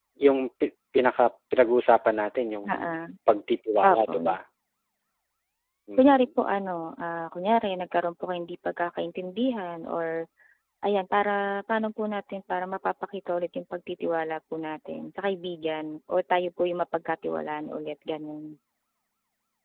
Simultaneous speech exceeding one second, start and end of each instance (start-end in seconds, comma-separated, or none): none